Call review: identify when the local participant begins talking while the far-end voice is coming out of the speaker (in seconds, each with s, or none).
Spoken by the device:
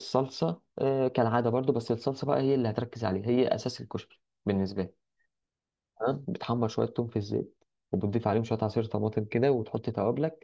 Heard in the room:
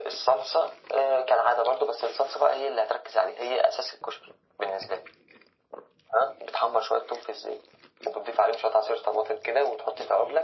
none